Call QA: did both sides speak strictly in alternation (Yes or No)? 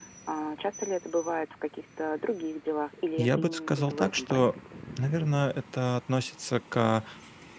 No